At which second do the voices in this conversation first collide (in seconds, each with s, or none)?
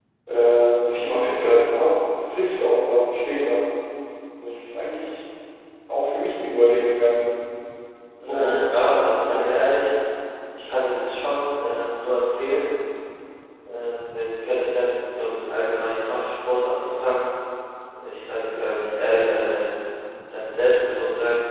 8.2 s